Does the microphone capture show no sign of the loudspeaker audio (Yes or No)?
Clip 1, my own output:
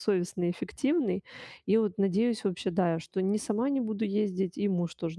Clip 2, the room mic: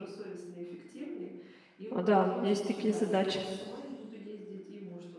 No